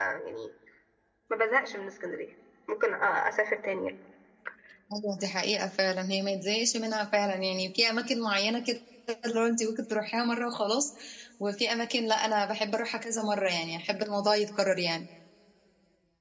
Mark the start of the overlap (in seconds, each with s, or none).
none